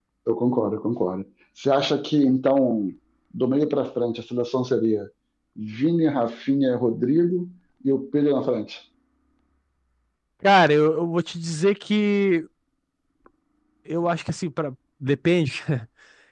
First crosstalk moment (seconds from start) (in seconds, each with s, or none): none